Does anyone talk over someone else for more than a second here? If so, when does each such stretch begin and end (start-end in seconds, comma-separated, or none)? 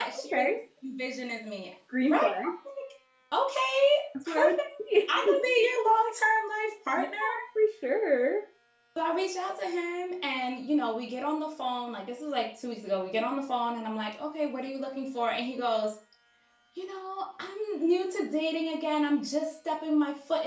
none